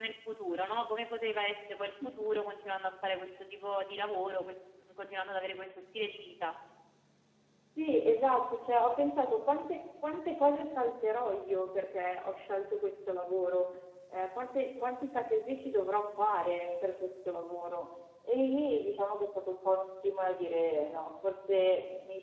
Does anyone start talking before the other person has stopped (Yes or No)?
No